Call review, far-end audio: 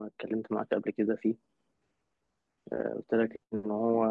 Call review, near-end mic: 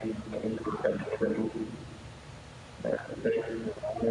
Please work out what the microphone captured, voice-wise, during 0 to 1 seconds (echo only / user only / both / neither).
echo only